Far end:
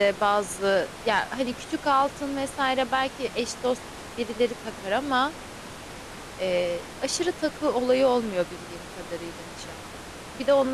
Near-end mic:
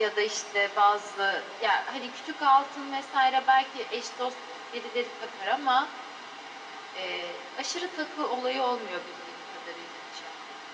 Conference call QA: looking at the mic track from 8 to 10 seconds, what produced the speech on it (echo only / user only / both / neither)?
echo only